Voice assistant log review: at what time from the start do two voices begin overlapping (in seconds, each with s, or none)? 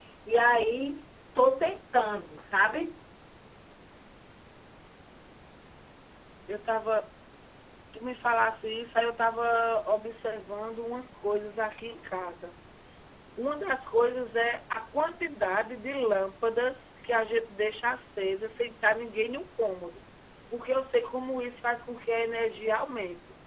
none